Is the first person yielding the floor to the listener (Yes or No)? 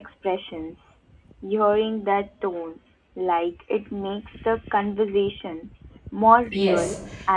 Yes